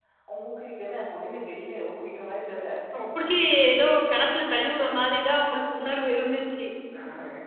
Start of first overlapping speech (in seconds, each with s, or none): none